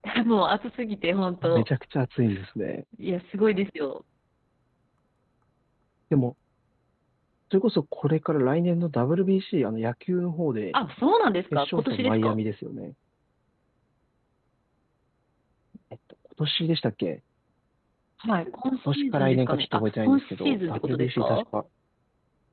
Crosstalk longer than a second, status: present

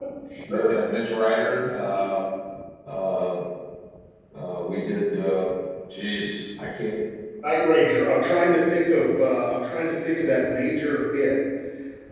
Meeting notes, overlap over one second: none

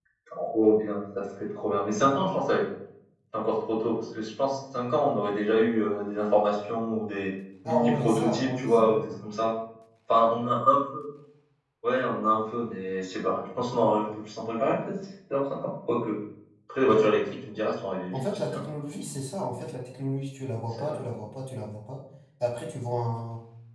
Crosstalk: present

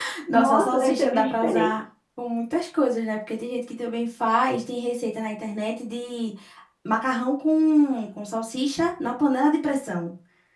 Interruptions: present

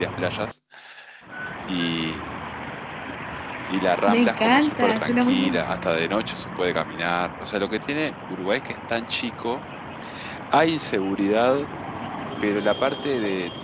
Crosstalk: present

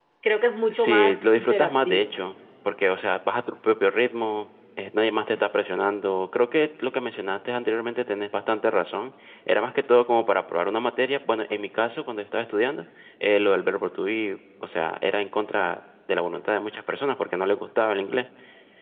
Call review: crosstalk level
present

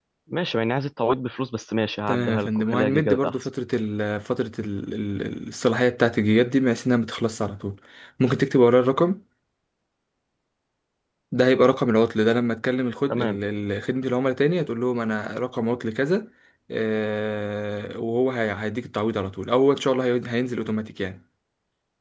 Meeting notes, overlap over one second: present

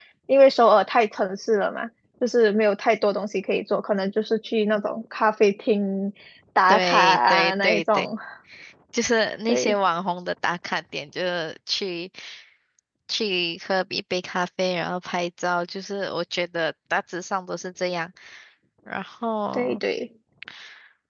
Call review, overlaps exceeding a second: present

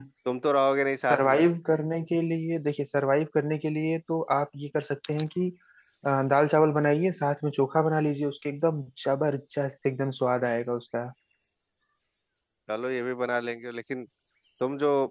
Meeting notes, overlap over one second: none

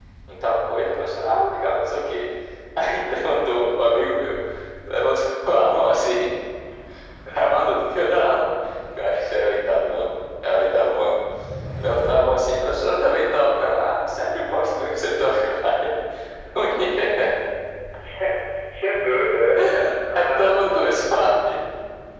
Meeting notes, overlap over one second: none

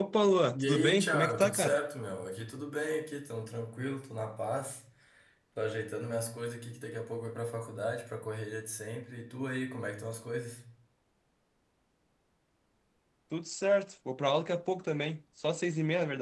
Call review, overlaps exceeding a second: present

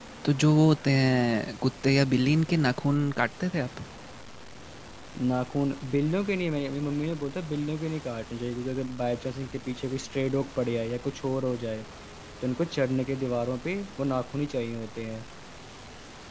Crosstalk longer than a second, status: none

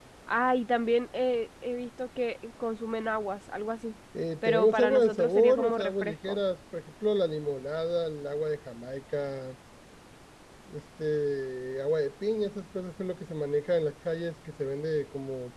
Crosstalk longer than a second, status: present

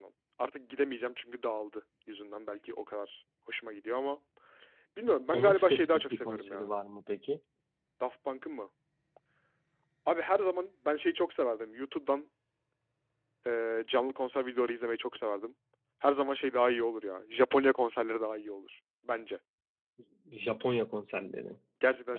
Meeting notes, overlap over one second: present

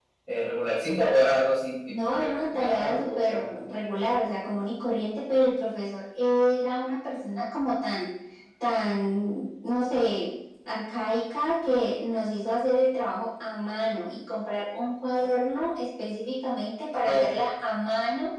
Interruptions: present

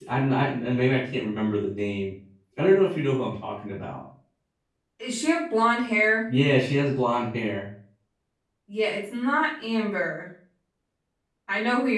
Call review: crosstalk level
none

